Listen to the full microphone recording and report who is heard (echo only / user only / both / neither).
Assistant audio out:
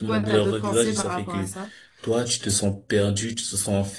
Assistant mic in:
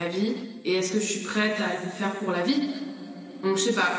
user only